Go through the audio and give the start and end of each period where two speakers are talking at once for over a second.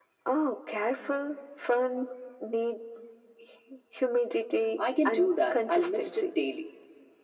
5.0-6.3

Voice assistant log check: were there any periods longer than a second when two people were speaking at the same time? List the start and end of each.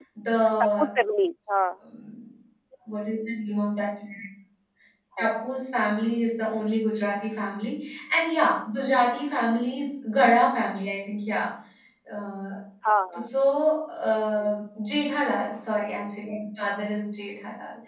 none

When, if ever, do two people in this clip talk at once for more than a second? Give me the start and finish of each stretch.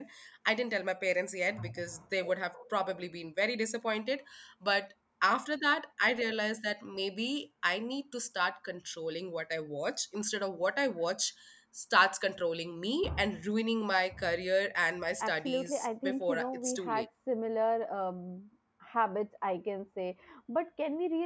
15.2-17.1

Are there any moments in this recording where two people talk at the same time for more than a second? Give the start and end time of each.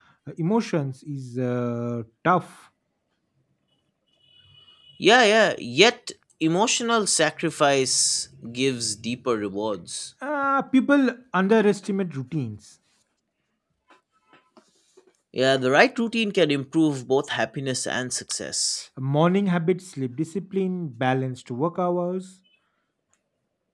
none

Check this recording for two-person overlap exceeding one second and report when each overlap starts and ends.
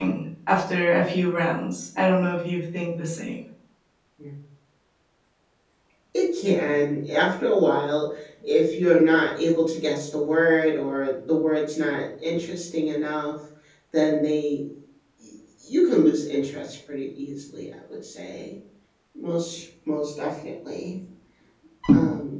none

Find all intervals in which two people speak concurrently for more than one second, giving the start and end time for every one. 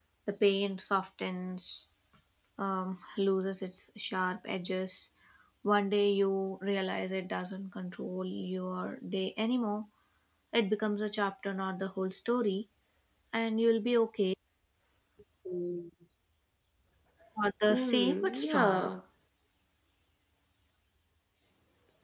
17.7-18.9

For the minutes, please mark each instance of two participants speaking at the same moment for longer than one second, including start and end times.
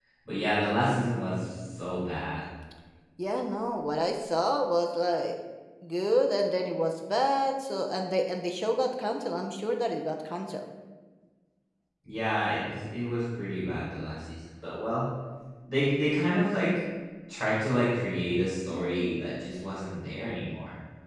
none

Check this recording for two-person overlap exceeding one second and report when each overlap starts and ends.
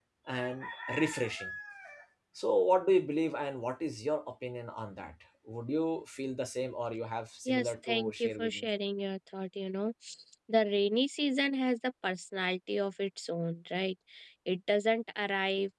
7.5-8.7

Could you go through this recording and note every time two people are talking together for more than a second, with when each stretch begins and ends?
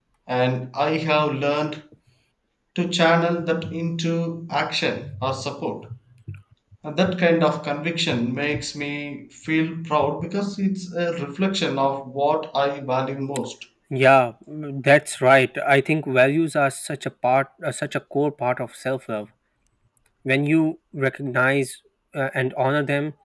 none

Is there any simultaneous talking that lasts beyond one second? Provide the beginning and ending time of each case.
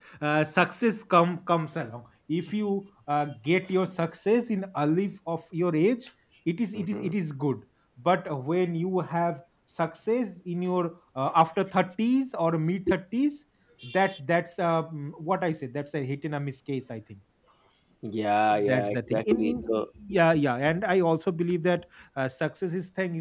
18.6-19.8

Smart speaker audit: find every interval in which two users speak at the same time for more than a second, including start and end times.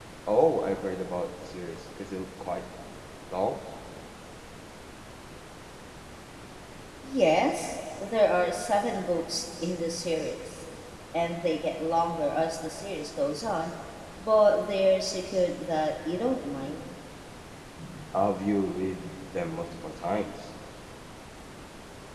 none

